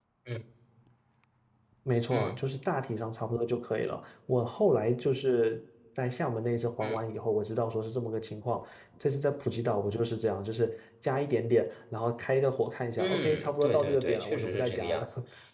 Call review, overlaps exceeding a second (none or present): present